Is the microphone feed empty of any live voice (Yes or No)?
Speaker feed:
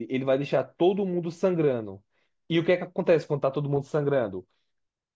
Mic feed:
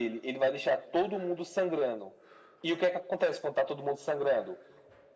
Yes